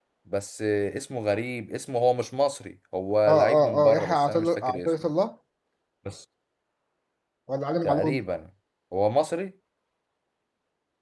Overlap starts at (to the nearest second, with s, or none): 3 s